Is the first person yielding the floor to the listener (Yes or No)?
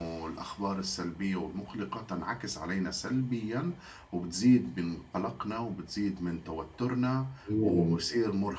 No